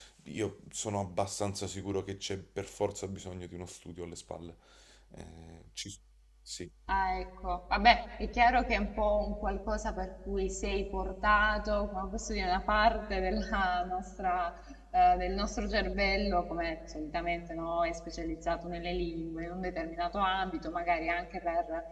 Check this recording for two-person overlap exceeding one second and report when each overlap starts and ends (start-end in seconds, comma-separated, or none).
none